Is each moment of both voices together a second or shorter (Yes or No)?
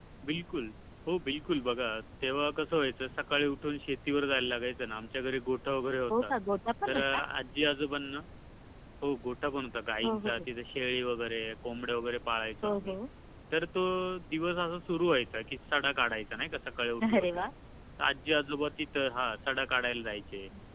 Yes